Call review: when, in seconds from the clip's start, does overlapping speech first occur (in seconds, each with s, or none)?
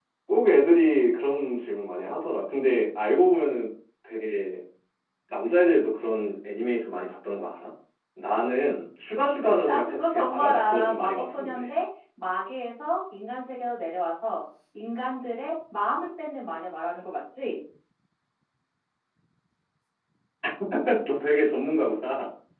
9.7 s